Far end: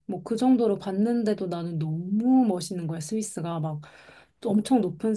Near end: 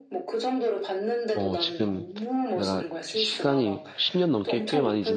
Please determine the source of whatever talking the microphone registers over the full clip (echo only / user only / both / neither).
both